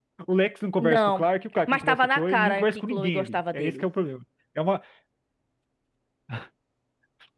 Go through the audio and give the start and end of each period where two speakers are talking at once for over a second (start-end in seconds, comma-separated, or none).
1.7-3.8